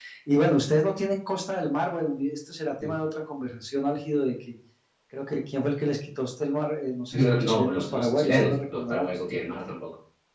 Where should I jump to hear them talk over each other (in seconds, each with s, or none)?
7.1 s